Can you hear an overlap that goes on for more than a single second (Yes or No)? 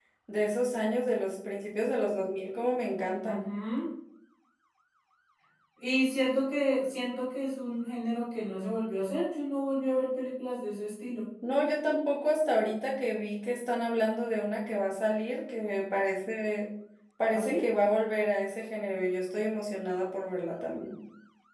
No